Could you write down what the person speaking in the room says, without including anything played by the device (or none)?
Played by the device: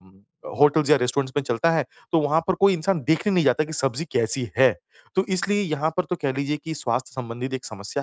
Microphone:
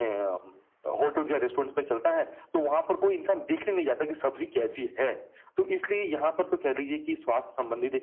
none